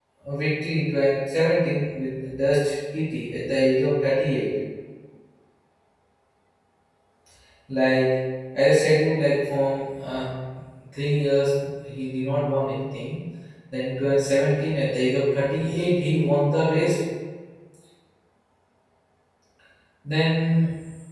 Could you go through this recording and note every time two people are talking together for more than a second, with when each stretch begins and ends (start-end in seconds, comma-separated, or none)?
none